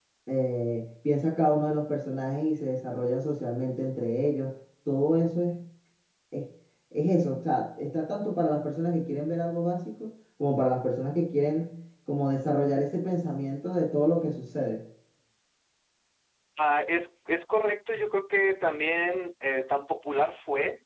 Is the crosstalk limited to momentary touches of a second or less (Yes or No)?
Yes